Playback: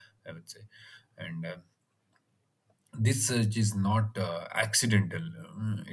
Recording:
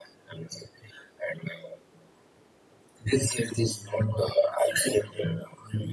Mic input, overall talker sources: echo only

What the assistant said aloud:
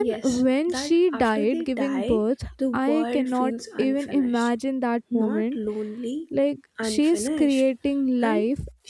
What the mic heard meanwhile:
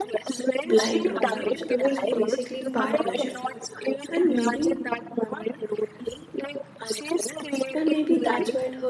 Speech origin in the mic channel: both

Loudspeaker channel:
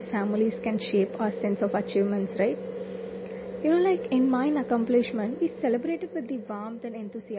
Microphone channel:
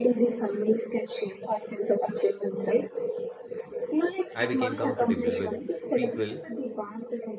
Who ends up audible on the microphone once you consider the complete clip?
both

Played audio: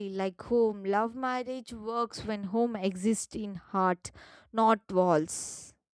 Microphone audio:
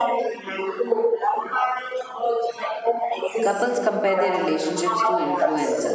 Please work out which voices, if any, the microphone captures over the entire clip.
both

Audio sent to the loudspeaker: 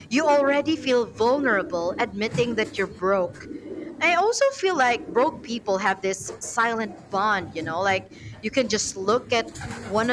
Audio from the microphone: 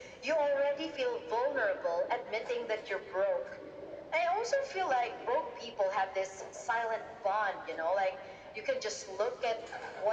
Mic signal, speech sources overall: echo only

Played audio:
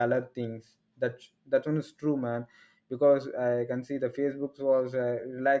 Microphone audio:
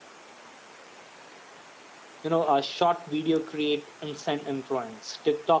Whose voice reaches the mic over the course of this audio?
user only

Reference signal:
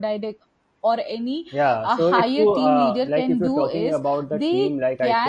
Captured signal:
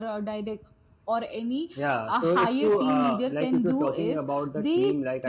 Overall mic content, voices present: echo only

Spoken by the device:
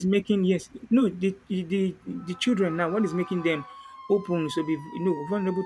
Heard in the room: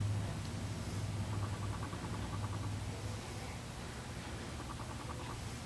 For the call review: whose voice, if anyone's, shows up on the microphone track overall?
neither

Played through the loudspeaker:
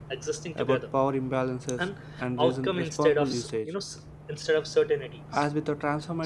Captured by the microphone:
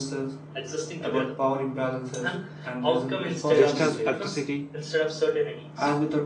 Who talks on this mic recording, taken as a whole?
both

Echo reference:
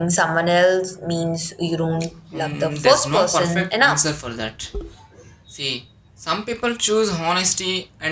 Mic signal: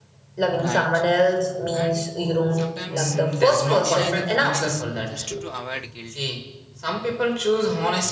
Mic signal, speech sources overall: both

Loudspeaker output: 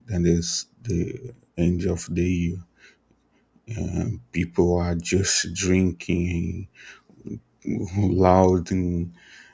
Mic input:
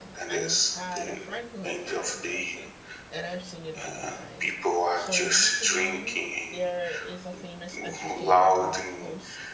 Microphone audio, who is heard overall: both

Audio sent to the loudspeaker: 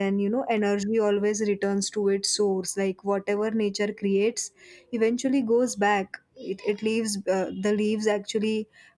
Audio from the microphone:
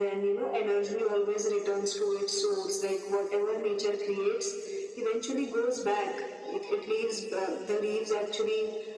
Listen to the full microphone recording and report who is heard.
echo only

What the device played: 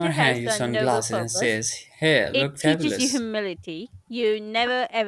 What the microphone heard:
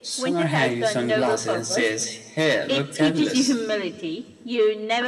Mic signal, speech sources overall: echo only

